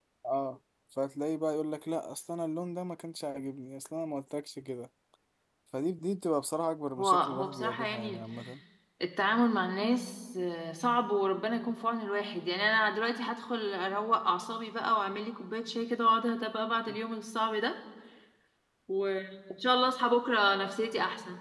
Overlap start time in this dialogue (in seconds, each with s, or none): 7.0 s